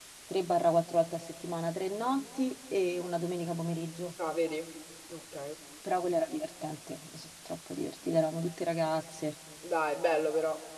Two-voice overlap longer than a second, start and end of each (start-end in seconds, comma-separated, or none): none